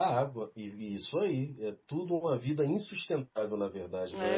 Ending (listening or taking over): taking over